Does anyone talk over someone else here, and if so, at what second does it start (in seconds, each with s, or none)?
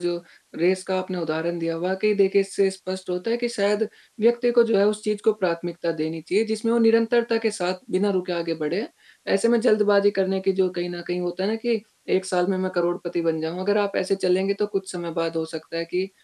none